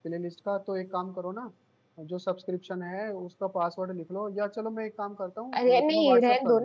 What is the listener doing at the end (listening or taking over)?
taking over